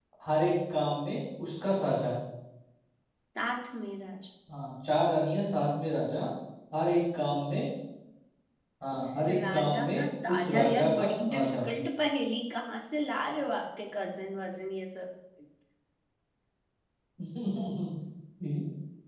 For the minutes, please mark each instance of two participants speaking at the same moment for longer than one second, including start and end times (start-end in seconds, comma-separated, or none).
8.9-11.6